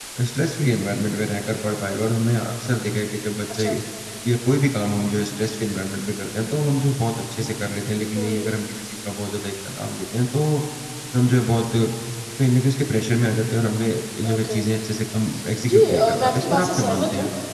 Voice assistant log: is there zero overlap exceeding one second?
No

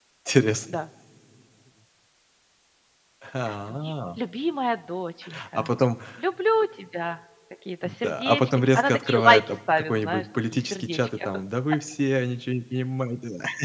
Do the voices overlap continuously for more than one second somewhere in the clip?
Yes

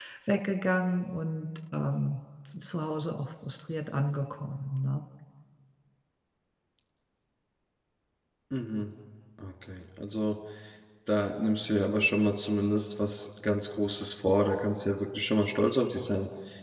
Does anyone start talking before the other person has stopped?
No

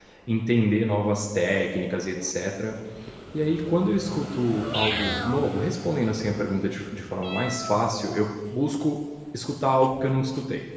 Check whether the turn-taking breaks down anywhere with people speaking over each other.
No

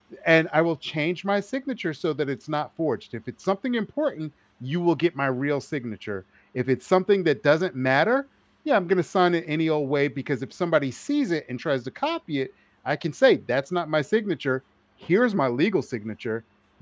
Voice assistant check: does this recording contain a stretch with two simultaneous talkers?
No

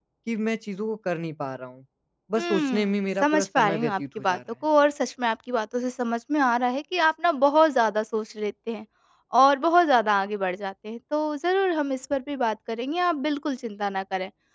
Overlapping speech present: Yes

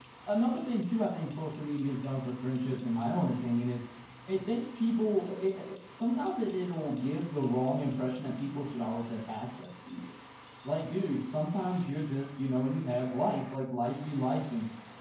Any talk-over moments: No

